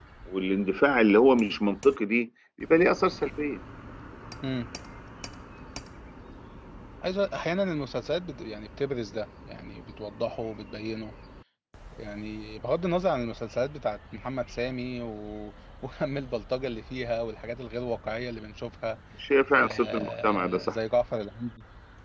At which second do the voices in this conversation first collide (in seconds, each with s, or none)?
19.5 s